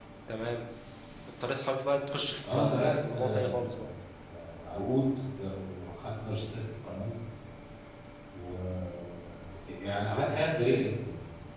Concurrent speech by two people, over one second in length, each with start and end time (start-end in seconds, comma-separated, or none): 2.5-3.9